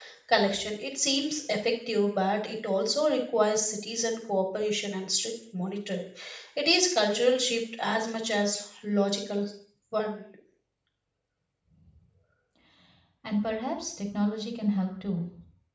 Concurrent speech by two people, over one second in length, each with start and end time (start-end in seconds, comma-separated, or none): none